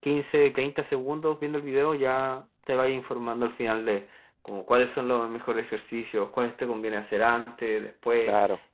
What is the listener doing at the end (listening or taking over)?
listening